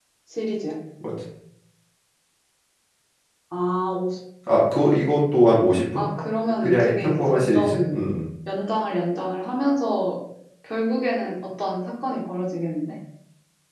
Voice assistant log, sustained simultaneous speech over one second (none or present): present